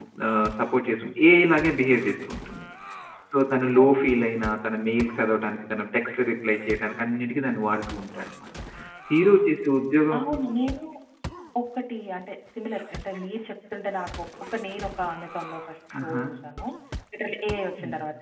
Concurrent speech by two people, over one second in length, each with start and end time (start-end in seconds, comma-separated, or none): none